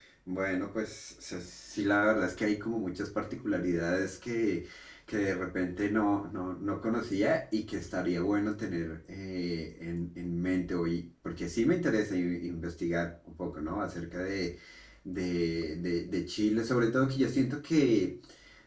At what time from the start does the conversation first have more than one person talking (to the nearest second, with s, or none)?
none